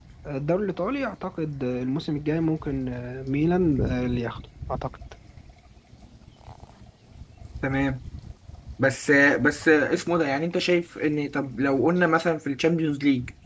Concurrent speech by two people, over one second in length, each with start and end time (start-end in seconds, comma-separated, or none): none